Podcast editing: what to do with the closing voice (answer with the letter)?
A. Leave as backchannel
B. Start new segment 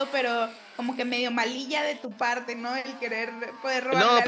B